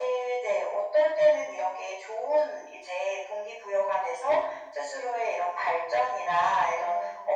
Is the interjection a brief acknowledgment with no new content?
Yes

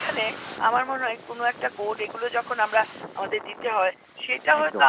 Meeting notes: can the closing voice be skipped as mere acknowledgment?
Yes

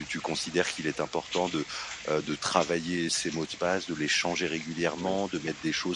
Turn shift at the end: No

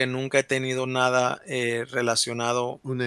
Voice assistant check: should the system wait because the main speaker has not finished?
No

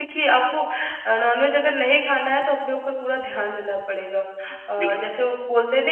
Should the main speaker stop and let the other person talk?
No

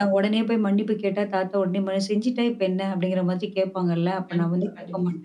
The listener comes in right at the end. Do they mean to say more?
No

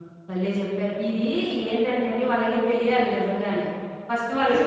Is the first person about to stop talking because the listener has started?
No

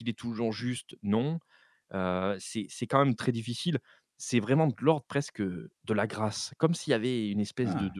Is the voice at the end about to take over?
No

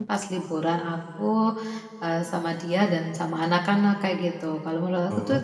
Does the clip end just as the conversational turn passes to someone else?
No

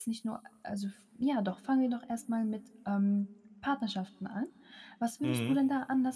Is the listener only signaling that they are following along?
Yes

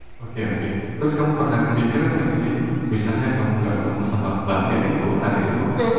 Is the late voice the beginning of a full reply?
No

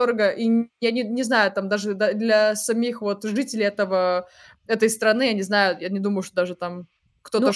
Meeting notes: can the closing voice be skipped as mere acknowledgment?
No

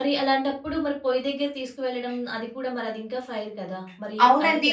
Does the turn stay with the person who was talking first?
No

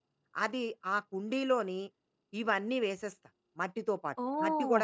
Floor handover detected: Yes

